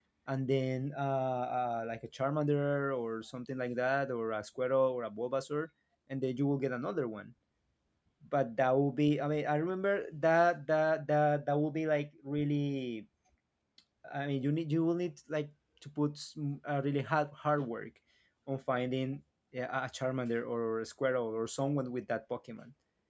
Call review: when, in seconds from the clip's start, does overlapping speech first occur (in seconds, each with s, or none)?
none